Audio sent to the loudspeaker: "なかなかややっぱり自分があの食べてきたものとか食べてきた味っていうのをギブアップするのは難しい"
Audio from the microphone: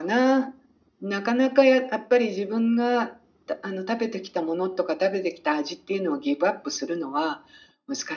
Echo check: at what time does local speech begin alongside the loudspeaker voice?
none

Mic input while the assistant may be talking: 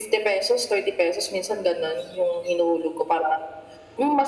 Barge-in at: none

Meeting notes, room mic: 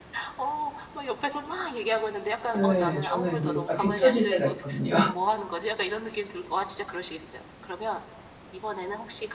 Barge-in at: 2.5 s

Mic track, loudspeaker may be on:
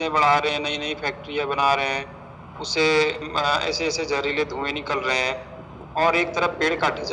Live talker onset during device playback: none

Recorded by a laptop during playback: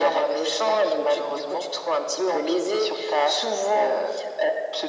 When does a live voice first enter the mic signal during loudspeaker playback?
none

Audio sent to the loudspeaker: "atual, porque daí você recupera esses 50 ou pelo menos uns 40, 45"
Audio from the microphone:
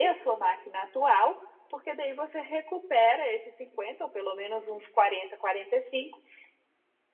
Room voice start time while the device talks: none

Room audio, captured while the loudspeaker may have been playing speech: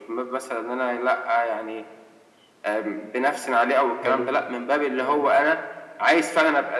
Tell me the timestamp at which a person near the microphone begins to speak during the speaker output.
3.9 s

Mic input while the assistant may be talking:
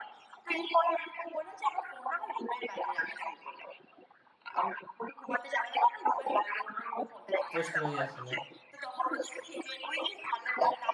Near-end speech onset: 7.5 s

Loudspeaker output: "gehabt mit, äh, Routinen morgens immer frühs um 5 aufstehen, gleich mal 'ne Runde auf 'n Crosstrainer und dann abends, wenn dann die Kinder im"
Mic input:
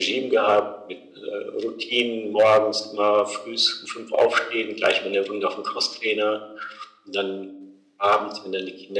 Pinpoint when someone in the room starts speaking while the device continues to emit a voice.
none

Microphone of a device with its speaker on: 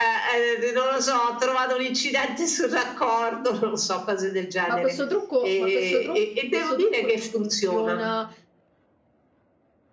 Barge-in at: 4.6 s

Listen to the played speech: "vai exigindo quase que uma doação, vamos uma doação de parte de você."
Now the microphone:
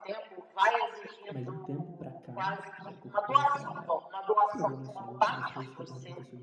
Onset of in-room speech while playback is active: 1.3 s

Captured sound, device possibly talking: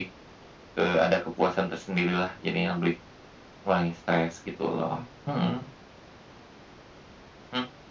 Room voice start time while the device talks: none

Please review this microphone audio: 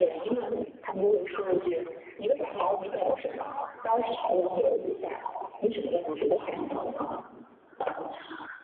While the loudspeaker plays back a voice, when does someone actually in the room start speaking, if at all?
none

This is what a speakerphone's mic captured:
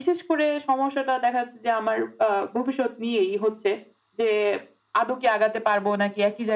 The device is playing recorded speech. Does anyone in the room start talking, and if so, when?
none

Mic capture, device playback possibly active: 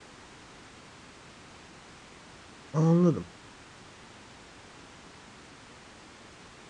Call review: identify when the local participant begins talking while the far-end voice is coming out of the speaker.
2.7 s

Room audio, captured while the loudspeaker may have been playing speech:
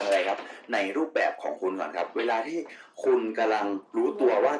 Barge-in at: 3.2 s

